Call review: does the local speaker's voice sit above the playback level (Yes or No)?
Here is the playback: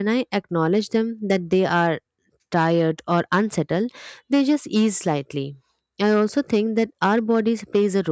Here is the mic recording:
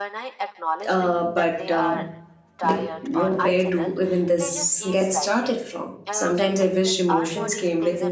Yes